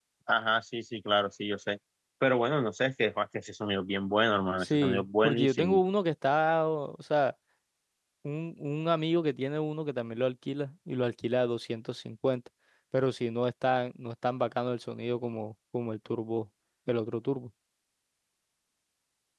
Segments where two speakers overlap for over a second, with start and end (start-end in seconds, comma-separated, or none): 4.6-5.8